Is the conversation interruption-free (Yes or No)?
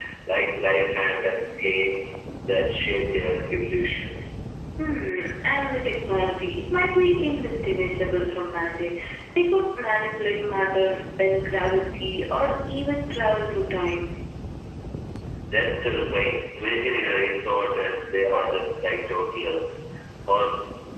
Yes